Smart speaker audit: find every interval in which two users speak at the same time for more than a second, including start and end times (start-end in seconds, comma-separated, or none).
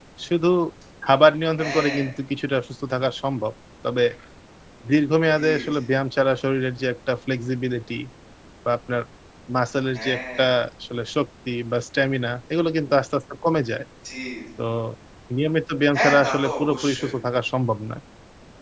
15.9-17.2